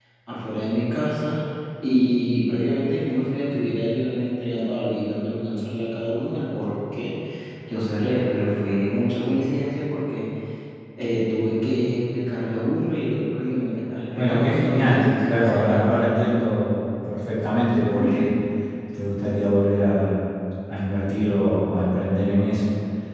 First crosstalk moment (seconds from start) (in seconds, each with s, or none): 14.2 s